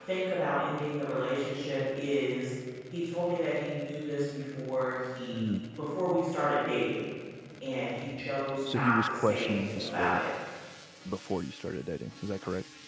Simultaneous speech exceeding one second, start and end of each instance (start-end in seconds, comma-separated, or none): 8.7-10.2